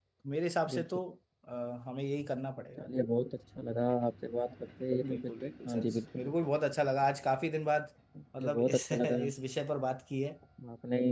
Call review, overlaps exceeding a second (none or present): present